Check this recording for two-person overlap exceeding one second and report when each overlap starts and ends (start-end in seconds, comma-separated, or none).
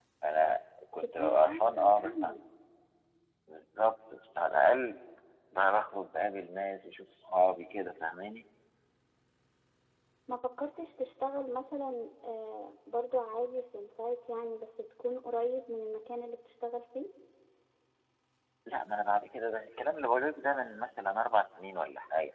1.0-2.3